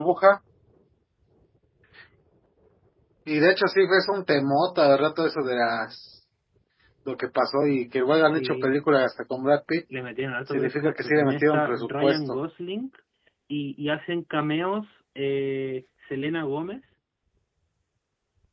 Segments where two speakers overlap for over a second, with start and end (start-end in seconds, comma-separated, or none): 10.5-12.2